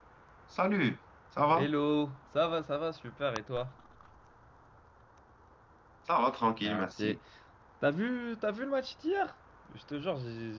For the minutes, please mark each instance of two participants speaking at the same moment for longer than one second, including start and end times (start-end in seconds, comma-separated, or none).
none